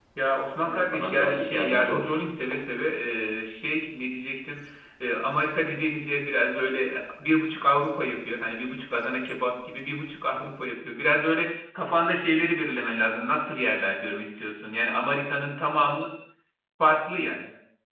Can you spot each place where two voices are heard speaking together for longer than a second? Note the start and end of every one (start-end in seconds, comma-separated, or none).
0.6-2.2